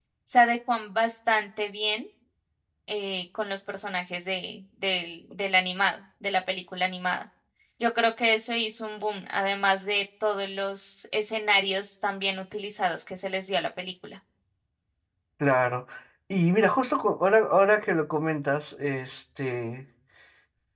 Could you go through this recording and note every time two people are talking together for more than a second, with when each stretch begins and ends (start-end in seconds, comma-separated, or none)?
none